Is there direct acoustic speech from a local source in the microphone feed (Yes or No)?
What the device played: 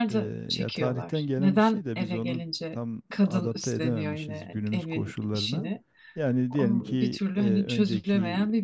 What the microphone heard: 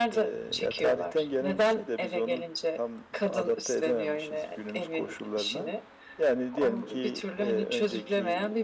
No